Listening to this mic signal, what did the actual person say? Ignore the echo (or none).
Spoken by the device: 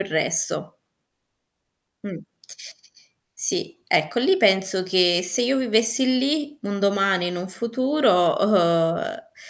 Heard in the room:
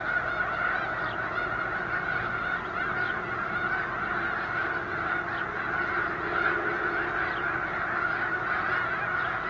none